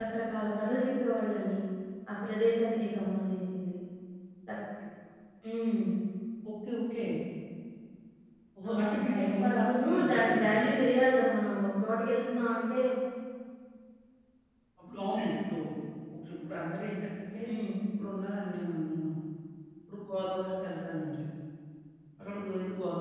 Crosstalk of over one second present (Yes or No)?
Yes